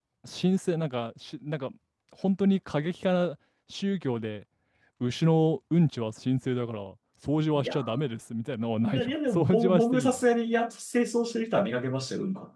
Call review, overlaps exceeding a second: present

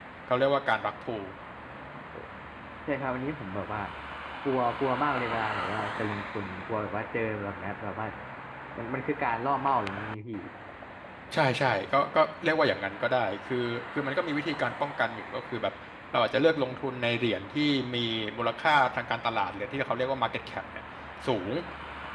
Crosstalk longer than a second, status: none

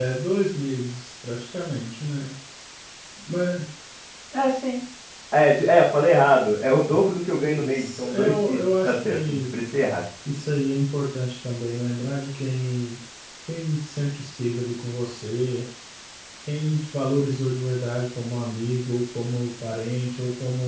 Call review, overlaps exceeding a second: present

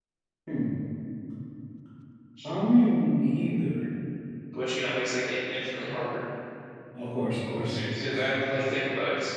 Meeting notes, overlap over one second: none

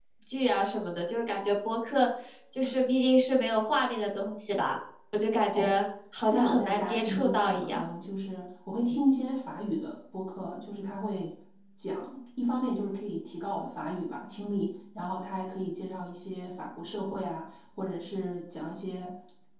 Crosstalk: present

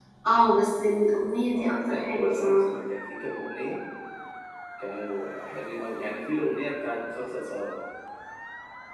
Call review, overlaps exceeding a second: present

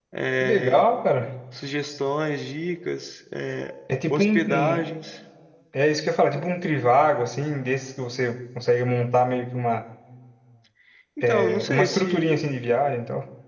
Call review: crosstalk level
present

